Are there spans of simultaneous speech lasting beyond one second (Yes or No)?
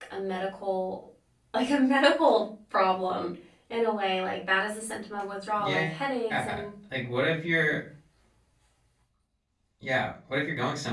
No